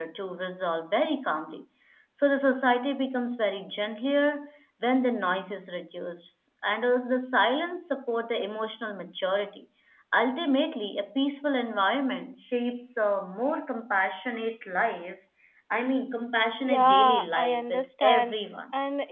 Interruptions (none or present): present